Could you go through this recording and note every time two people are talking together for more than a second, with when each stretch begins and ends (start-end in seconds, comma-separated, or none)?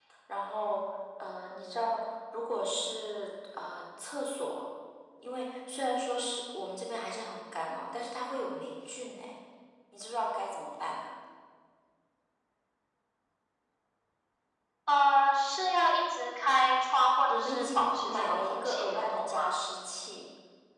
17.3-19.5